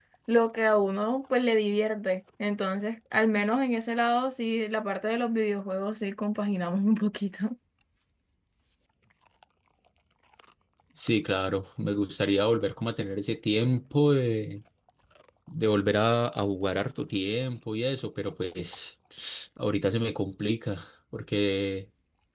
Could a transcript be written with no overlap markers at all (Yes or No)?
Yes